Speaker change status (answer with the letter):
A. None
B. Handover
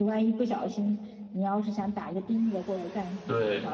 A